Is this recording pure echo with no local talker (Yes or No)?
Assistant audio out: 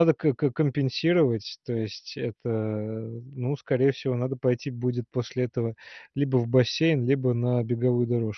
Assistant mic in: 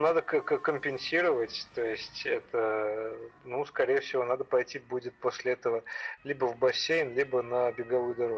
Yes